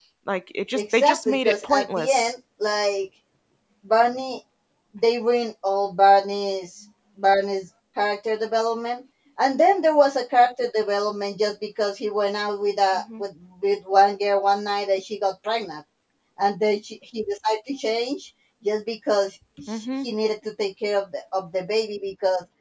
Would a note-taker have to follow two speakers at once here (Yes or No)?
Yes